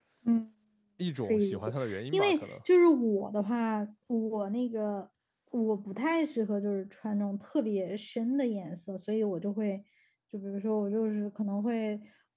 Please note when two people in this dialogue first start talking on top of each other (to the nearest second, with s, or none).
1 s